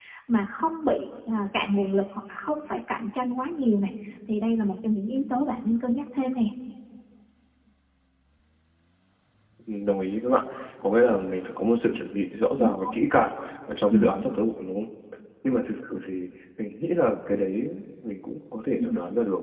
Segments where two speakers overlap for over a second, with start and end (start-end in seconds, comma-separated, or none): none